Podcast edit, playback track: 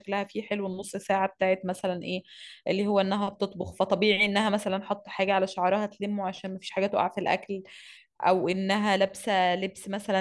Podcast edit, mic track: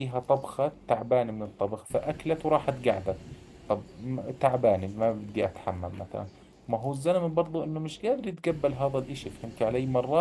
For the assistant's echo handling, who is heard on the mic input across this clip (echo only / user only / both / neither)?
user only